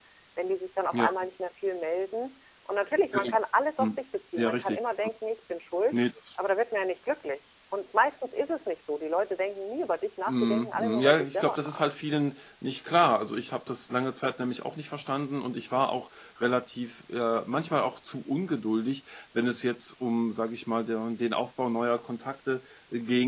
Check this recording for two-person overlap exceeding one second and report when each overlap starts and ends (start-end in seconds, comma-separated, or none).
10.3-11.8